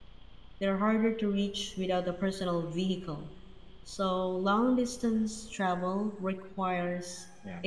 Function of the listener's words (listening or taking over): listening